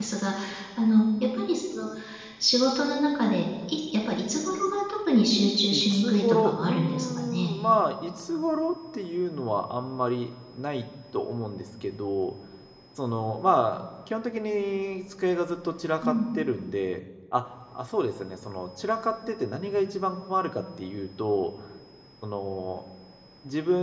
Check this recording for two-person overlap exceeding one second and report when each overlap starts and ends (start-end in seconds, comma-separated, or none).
5.7-7.5